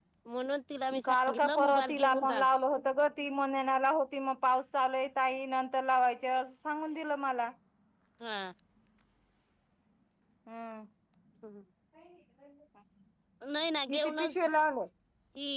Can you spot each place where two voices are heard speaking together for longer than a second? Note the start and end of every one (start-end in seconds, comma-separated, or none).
1.0-2.4